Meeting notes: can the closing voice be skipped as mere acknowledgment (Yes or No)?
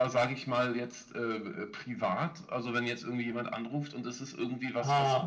Yes